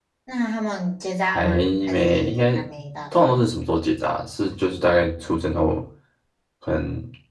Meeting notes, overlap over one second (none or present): present